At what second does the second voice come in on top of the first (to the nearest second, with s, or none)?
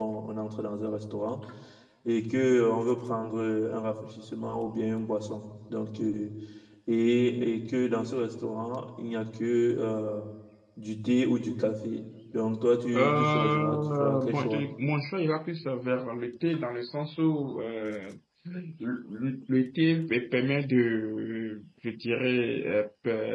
13 s